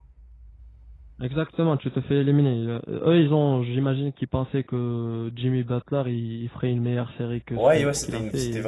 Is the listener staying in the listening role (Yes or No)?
No